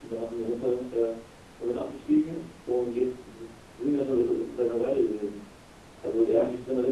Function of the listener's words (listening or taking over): listening